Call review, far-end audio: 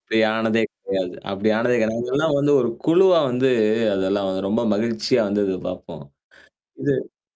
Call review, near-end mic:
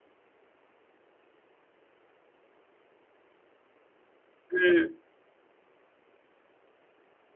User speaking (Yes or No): Yes